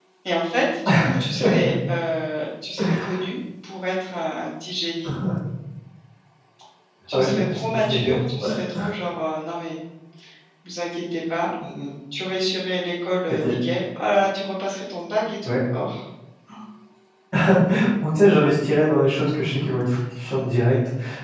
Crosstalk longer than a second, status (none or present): present